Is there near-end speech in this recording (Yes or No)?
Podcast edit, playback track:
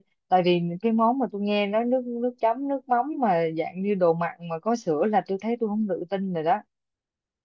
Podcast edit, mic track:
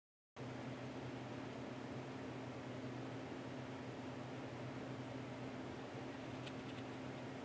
No